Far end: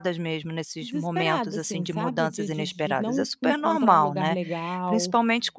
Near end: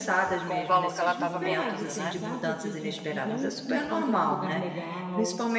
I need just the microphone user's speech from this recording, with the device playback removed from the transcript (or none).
Com o valor que ela estava cobrando, né?